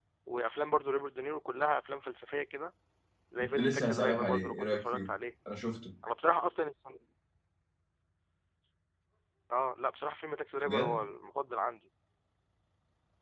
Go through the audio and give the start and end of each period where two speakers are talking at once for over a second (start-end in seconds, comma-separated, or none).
3.5-5.1